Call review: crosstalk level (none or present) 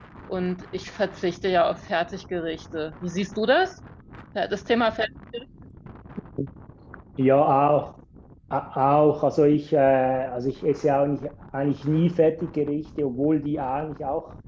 none